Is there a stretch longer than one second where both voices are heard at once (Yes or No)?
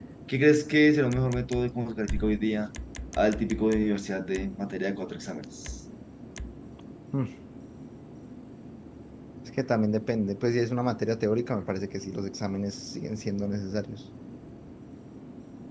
No